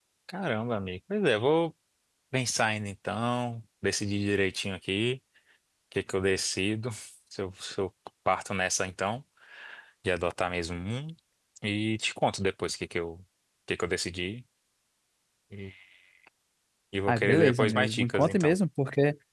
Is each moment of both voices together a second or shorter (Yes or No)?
No